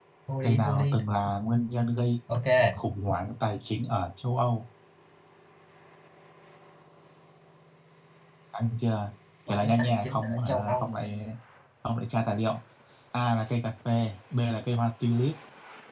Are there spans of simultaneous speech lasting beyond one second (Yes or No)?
Yes